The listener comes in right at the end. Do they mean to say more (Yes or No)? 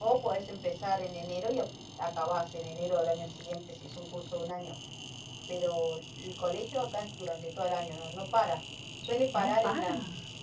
No